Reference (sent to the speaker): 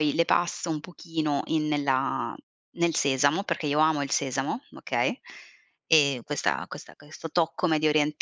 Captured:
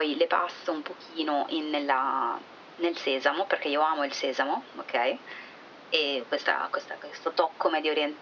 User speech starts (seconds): none

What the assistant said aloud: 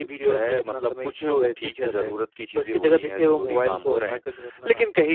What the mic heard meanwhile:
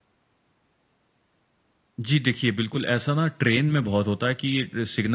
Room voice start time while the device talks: 2 s

